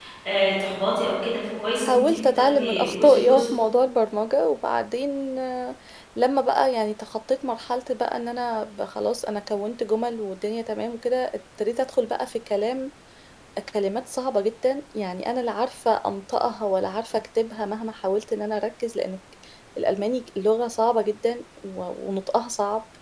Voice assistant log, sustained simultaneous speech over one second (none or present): present